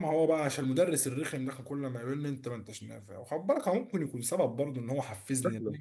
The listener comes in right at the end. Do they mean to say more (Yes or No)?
Yes